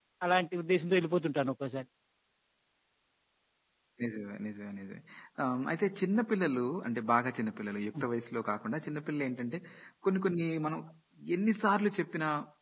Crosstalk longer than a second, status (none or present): none